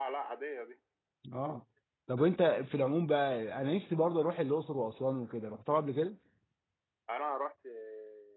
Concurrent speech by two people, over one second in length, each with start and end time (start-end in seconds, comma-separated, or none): none